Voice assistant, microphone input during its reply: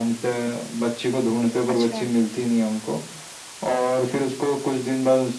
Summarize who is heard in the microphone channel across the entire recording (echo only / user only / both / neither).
both